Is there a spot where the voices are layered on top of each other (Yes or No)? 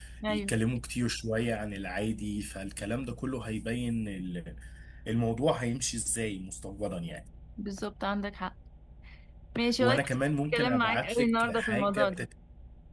Yes